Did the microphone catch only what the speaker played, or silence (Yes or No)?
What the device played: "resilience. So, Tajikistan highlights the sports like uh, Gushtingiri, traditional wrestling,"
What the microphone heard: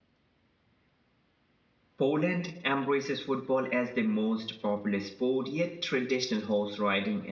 No